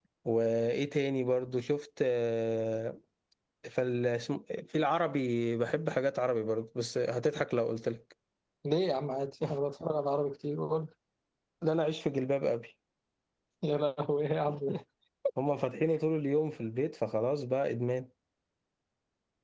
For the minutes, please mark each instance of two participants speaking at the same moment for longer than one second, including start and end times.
none

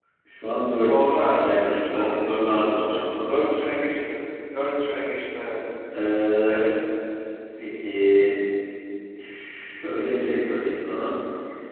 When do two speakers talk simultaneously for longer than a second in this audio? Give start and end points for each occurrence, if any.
0.8-2.3

